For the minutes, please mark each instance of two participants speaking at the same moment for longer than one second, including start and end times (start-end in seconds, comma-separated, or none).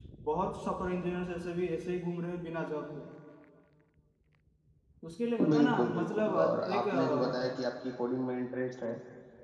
5.5-7.5